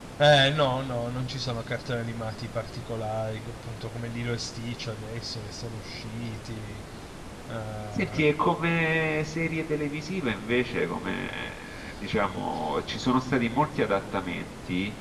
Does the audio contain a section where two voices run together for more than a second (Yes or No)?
No